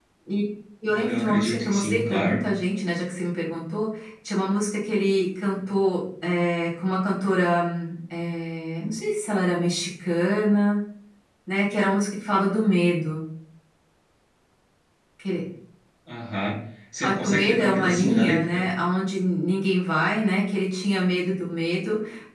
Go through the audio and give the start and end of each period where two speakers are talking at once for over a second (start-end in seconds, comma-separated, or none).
0.9-2.5, 17.0-18.6